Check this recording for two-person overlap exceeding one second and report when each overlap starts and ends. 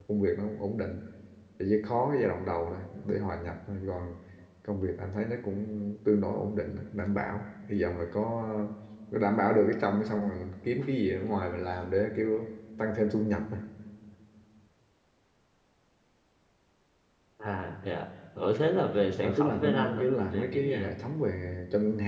19.2-20.9

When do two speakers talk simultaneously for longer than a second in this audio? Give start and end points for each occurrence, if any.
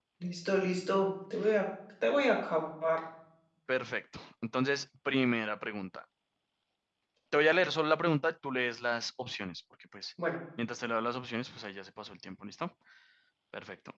none

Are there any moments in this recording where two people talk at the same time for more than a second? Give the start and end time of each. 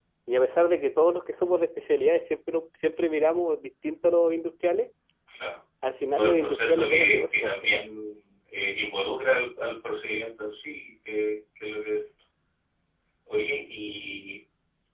6.1-7.8

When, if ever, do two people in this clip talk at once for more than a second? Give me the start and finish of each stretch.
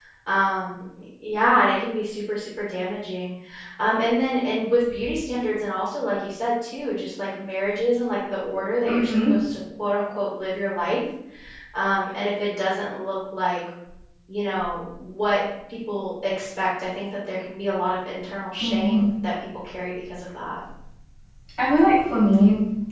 none

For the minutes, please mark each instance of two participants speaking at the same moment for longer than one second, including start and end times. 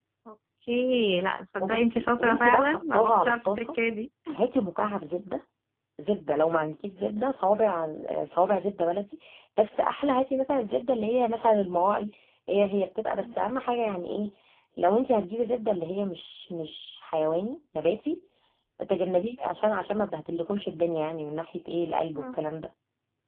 1.6-3.8

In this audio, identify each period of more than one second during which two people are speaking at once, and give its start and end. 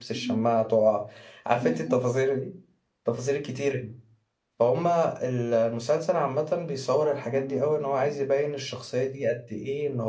7.0-8.2

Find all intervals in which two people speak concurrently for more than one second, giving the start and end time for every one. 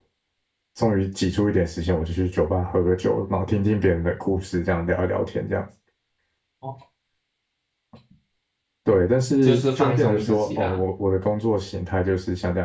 9.4-10.8

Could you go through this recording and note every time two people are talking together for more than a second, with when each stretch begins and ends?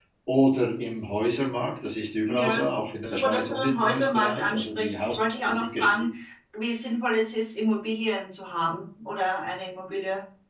3.0-6.0

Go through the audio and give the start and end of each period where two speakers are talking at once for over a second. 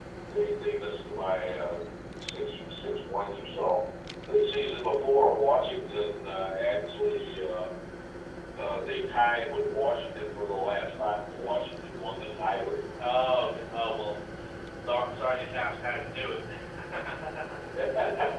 none

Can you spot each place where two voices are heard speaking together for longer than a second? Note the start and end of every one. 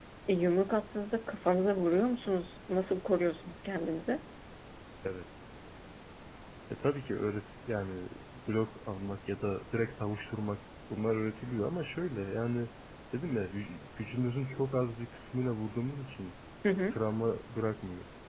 none

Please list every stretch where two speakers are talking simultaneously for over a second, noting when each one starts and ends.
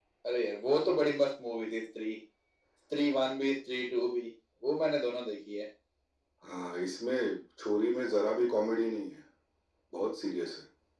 none

